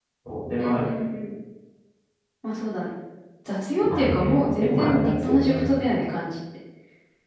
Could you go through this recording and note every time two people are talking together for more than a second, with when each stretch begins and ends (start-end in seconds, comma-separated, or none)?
3.8-5.7